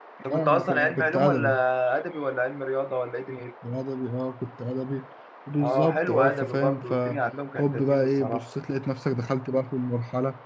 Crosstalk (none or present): present